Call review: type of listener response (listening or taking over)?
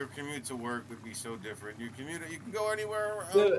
taking over